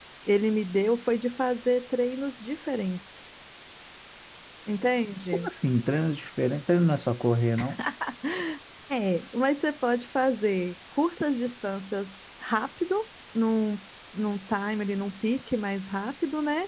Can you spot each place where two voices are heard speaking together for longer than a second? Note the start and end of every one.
none

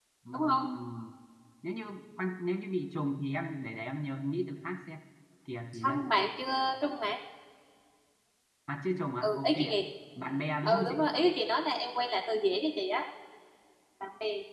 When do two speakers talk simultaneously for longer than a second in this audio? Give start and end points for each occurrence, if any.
none

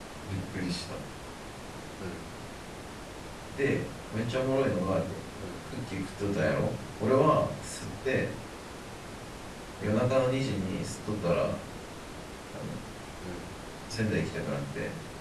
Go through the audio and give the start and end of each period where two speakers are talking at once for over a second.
none

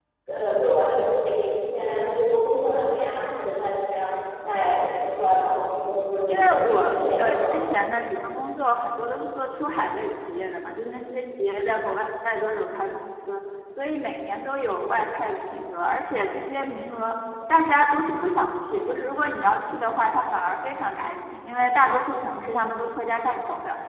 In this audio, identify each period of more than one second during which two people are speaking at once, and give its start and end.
6.3-7.5

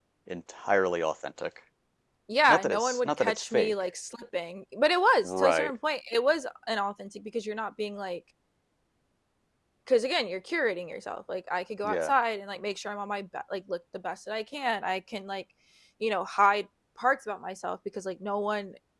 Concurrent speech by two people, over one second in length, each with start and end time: 2.5-3.7

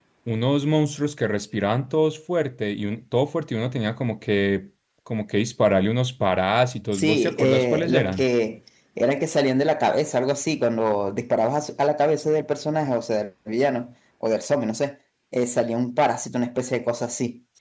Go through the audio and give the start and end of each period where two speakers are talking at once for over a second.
6.9-8.2

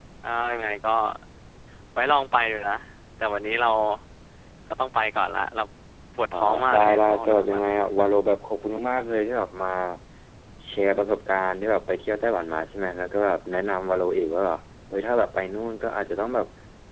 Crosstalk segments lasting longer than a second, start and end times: 6.3-7.6

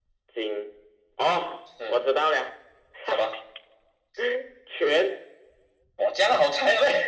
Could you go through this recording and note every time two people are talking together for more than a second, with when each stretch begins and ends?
none

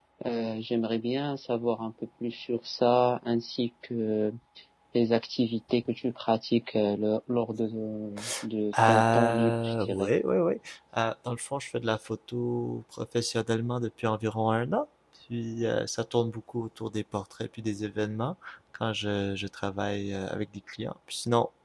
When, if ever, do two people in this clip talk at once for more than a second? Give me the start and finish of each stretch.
8.9-10.1

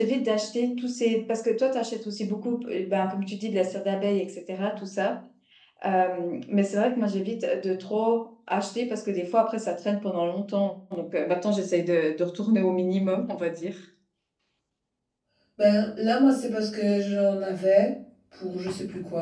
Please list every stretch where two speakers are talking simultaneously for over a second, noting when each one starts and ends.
none

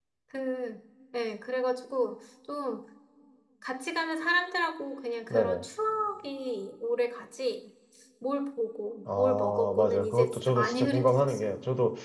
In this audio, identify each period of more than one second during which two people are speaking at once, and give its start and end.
9.2-11.4

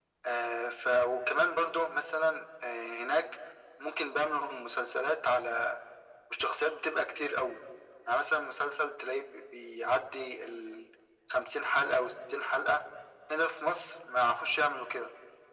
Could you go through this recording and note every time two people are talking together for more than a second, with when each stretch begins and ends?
none

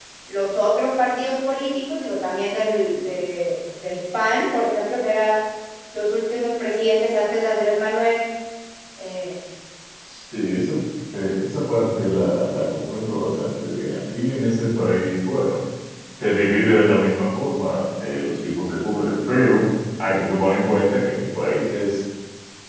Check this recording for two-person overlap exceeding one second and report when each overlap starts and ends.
none

